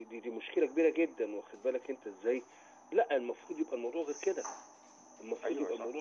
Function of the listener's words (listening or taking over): listening